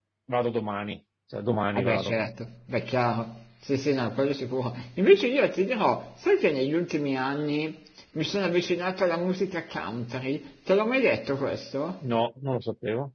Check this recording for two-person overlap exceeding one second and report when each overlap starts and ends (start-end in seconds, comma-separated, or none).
none